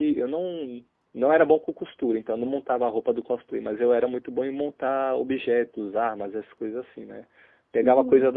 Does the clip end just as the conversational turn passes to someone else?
No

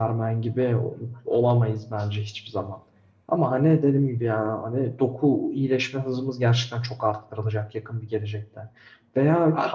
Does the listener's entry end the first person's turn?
No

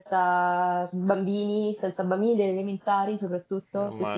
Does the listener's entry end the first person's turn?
Yes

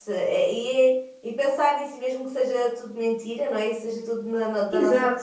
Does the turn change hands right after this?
Yes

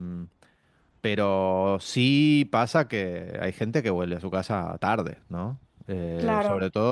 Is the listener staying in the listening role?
Yes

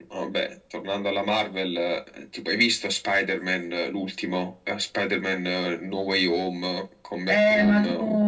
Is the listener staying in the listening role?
No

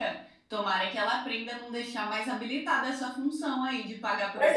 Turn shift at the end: Yes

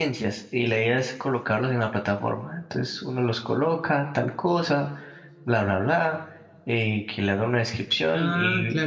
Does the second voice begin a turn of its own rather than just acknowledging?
No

